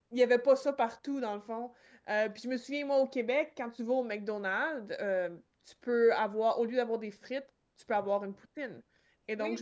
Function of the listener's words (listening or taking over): taking over